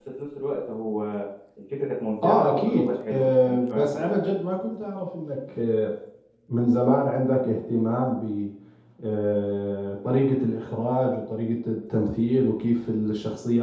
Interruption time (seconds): 2.2 s

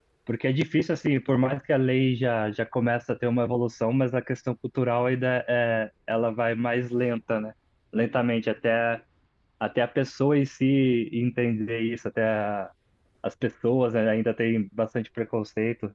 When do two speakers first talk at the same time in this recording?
none

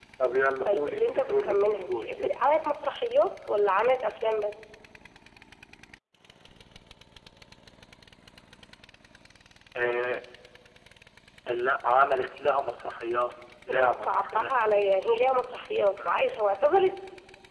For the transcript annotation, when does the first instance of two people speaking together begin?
0.7 s

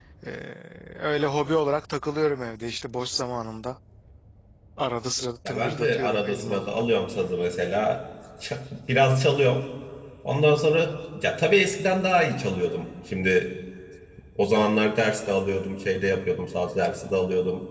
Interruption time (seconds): 5.5 s

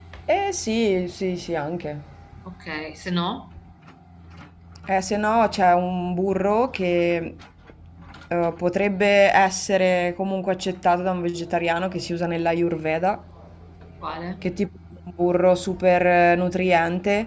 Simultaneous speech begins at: none

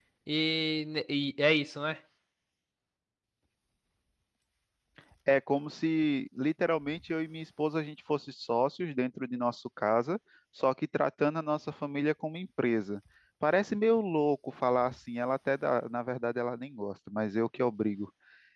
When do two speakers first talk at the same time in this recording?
none

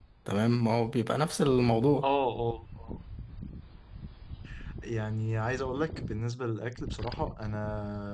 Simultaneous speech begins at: none

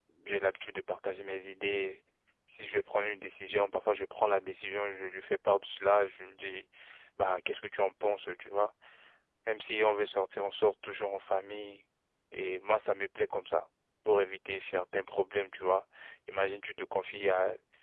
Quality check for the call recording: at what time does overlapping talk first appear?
none

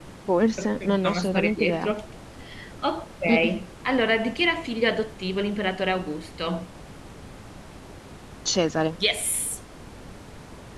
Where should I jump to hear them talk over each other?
0.6 s

